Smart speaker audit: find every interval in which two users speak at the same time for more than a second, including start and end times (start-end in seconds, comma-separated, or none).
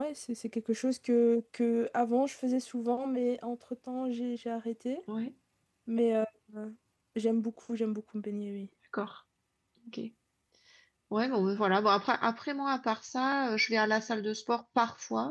none